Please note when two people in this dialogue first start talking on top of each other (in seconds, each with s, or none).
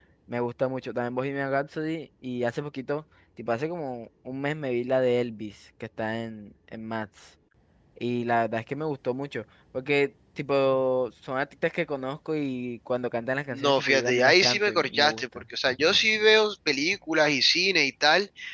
13.5 s